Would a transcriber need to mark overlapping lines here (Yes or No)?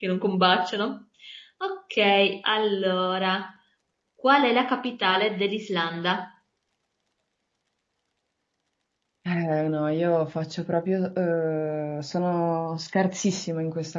No